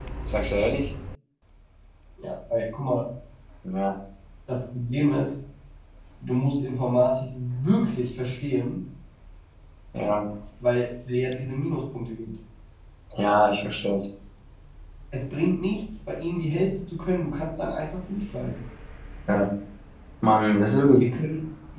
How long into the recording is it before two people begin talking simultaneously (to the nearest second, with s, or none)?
none